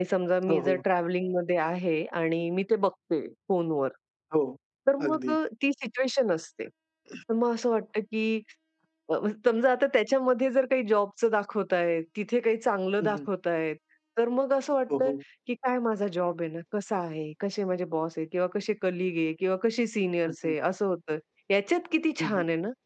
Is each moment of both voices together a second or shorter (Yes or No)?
Yes